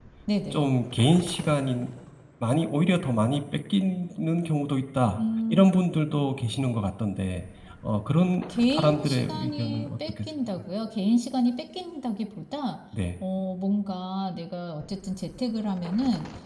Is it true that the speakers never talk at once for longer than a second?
No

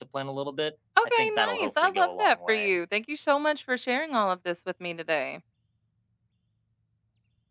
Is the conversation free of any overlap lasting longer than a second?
No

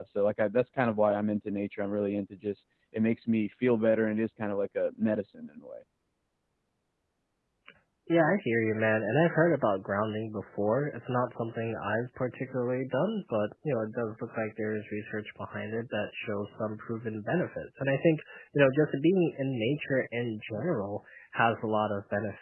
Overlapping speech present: No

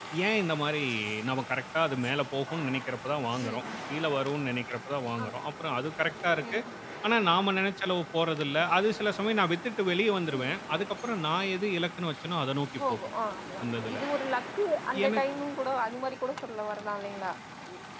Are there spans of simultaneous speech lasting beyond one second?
No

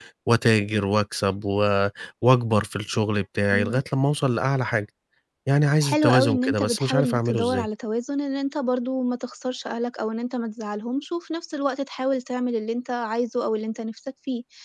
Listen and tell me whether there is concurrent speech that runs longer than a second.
Yes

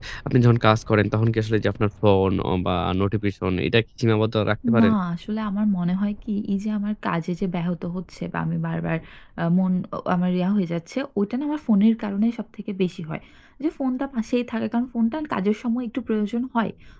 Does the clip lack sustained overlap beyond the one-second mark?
Yes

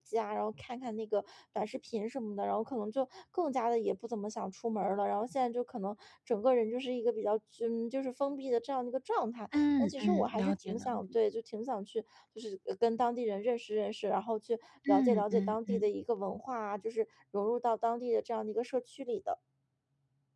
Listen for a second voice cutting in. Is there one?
Yes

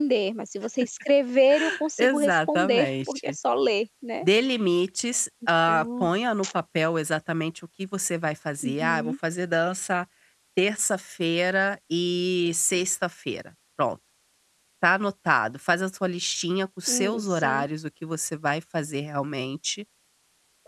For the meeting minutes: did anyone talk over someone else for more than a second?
Yes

